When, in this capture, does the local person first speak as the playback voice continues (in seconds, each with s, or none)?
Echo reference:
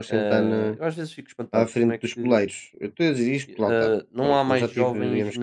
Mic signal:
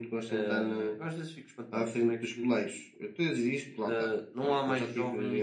none